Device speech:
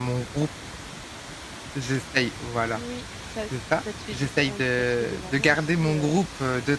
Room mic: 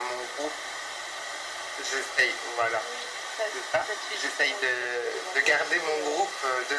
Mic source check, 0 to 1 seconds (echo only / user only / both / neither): echo only